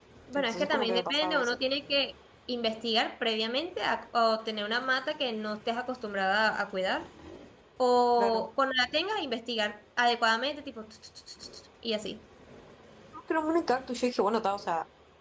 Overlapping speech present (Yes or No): Yes